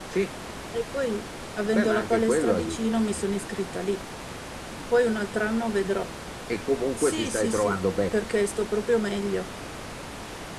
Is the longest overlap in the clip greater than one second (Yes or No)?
Yes